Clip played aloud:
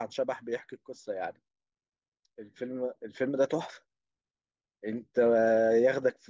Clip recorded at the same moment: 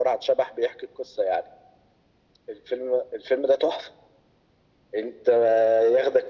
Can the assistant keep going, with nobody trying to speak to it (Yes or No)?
Yes